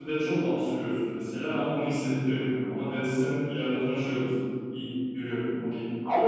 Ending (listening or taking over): taking over